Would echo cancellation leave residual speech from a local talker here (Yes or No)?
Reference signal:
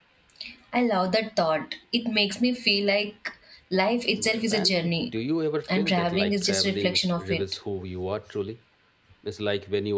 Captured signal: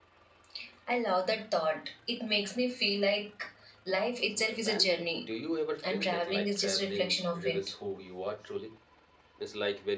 No